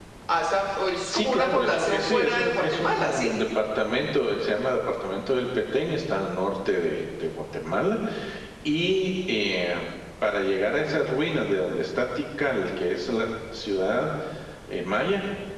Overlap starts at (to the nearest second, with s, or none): 1 s